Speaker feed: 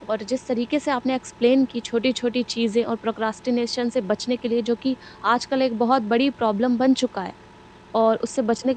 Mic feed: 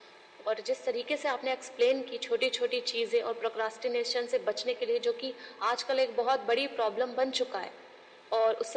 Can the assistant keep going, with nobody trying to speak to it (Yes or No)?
Yes